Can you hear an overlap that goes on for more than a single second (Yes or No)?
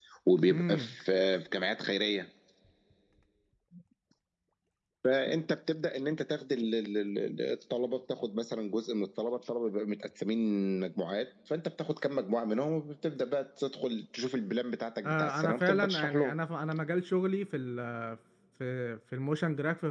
Yes